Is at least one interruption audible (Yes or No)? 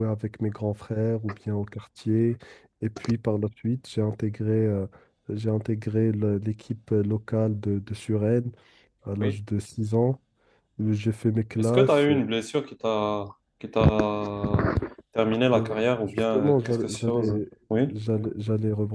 Yes